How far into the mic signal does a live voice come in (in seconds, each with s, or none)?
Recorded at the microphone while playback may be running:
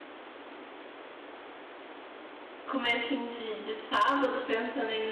2.6 s